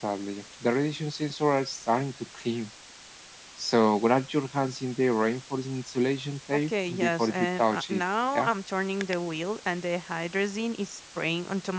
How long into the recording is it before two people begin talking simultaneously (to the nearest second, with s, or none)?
7 s